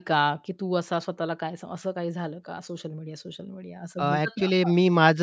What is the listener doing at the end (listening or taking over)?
taking over